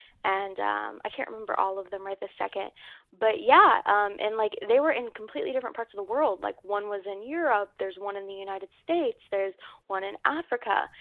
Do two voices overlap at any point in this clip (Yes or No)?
No